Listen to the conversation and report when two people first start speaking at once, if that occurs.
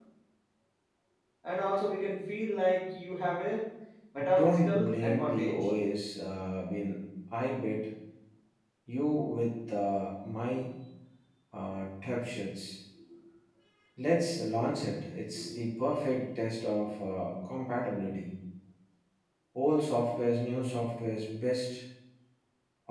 4 s

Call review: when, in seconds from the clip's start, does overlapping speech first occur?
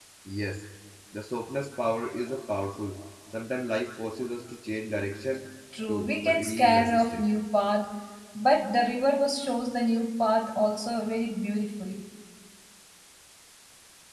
6 s

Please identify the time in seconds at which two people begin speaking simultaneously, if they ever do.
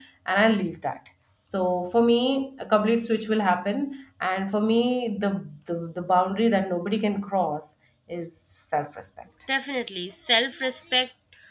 none

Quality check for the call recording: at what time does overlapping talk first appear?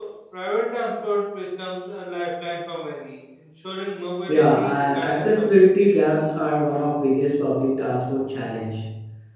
4 s

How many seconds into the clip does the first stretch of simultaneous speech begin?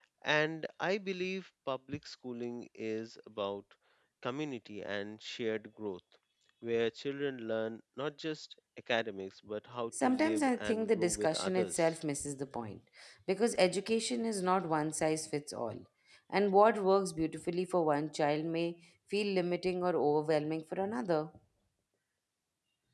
10 s

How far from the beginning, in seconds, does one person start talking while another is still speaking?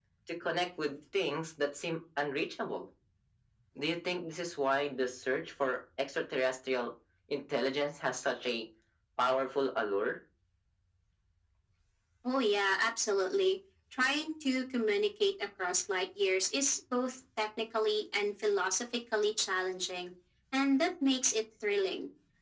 none

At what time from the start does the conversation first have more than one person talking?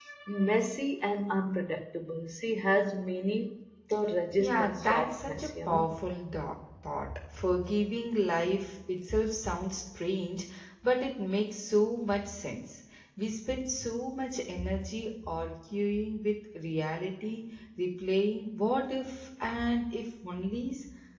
4 s

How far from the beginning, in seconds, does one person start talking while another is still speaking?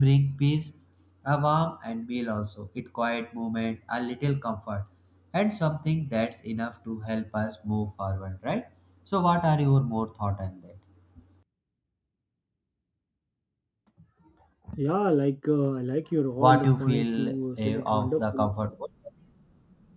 16 s

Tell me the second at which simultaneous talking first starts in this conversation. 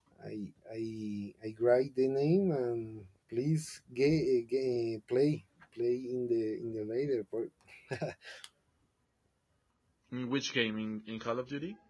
none

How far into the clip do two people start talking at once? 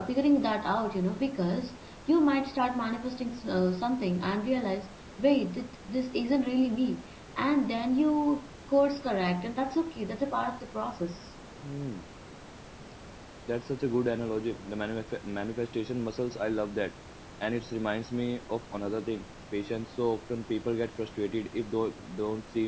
none

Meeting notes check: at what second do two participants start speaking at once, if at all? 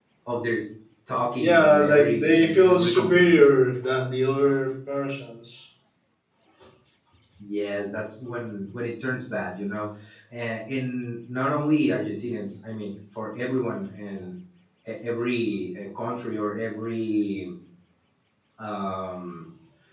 1 s

